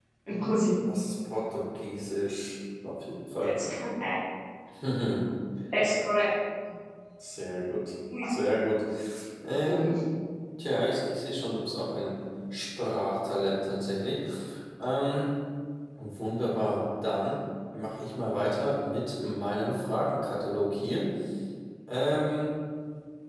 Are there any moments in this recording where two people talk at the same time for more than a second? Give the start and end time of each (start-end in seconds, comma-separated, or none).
none